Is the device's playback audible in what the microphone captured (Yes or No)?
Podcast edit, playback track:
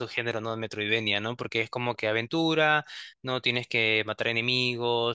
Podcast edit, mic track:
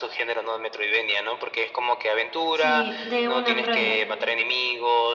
Yes